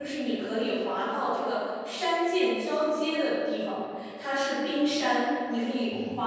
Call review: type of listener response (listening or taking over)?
listening